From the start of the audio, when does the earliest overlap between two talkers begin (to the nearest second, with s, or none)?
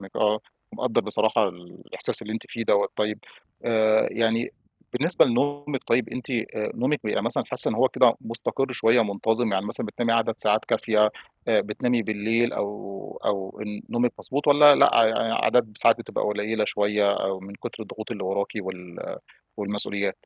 none